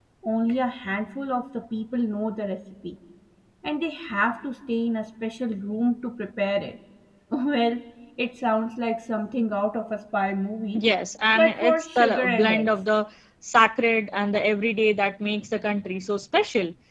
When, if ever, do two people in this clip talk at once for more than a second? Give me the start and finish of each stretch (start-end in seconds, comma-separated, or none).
11.3-12.7